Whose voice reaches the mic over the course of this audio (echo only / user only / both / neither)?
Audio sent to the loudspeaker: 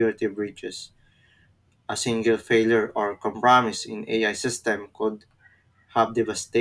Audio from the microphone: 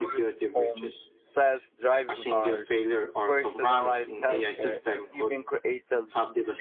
both